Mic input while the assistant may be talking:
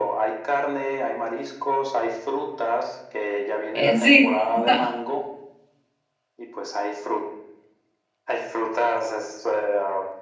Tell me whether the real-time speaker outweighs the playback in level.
Yes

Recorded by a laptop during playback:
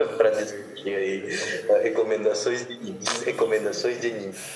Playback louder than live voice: Yes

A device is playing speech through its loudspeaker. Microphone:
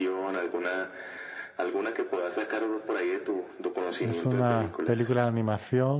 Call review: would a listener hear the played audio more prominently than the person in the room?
No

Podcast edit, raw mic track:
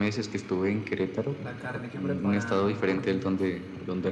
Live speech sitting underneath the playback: Yes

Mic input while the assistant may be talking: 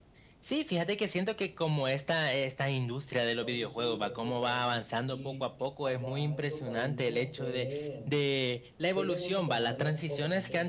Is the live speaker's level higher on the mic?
No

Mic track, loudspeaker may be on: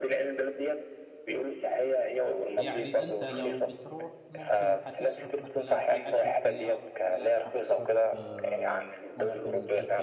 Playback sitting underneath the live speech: No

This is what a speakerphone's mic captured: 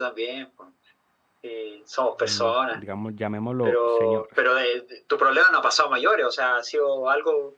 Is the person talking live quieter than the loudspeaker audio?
Yes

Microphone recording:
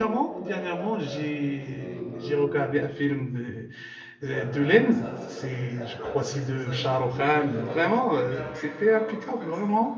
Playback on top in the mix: No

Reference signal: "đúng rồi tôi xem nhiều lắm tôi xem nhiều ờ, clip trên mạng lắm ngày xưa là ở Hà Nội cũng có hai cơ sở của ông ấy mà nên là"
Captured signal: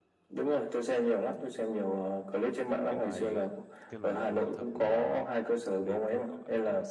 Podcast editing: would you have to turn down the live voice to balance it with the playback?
No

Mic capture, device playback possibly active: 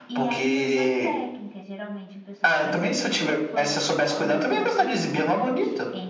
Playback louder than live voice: Yes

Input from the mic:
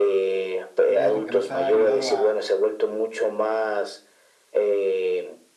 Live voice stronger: No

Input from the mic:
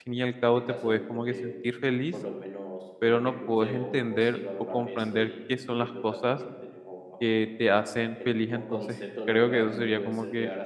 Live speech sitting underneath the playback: No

